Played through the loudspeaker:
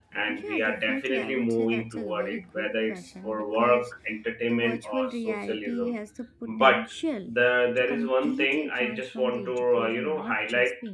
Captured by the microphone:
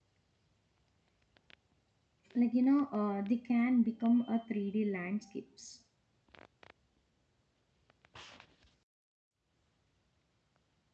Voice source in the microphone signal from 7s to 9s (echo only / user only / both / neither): neither